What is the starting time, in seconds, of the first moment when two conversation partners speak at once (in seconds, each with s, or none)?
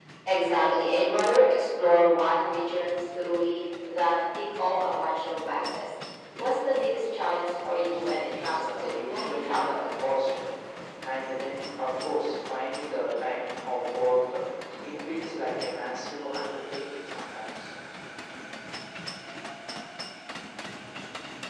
7.5 s